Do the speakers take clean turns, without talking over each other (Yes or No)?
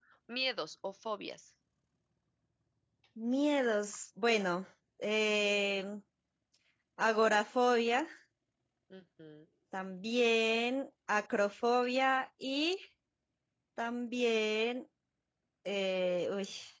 Yes